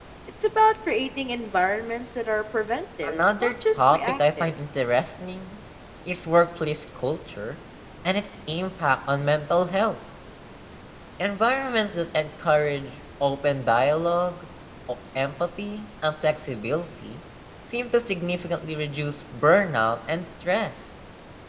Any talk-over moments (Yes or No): Yes